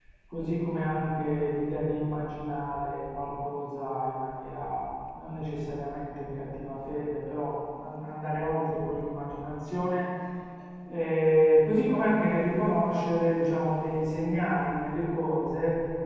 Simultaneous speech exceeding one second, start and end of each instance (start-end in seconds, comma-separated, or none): none